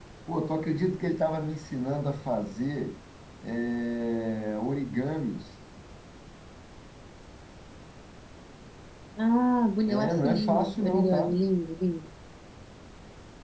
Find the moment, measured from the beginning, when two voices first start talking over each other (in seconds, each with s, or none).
9.9 s